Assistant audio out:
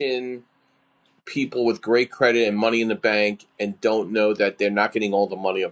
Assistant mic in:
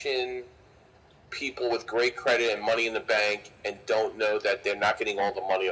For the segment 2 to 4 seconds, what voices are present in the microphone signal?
echo only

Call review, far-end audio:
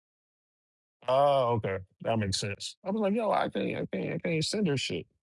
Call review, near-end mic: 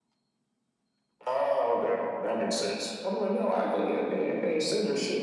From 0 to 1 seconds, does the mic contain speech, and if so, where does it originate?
neither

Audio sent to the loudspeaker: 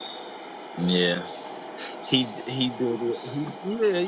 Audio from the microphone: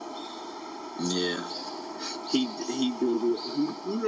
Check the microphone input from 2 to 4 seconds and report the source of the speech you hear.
echo only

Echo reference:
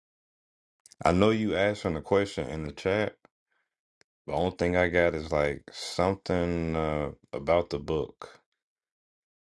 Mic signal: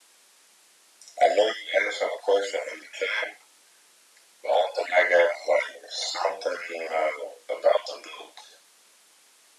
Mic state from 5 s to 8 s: echo only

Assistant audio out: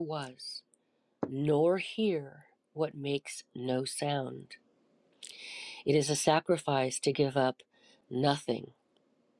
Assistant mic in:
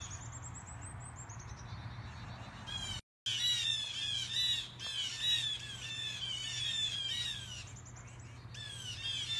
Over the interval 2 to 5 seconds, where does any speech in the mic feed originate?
neither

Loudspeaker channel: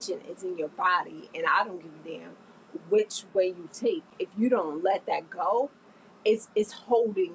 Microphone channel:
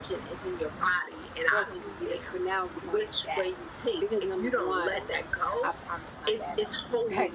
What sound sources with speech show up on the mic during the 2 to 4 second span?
both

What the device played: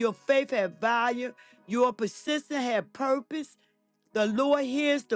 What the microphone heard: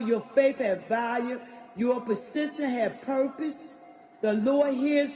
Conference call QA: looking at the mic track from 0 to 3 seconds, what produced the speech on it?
echo only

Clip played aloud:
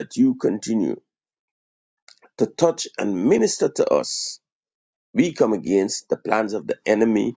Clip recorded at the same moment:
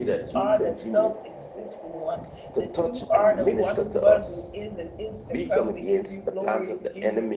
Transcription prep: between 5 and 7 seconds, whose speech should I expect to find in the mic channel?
both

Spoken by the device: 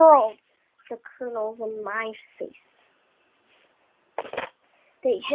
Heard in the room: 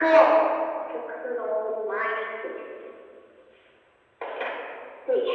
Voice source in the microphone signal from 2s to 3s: echo only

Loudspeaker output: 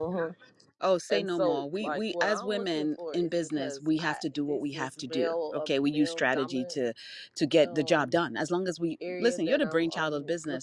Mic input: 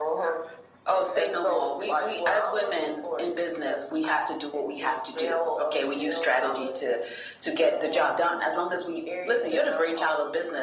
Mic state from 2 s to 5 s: echo only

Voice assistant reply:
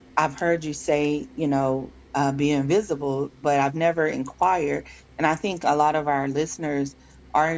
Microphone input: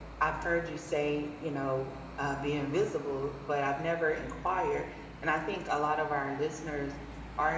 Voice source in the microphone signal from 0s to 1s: echo only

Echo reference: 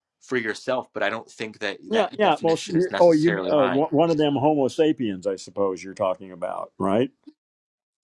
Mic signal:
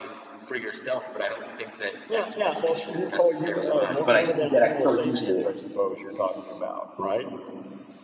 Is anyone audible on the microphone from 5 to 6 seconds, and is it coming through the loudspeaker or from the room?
both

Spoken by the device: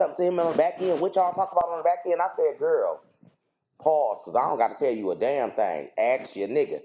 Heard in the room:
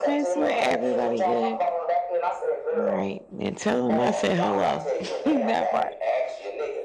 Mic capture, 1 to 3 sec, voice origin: both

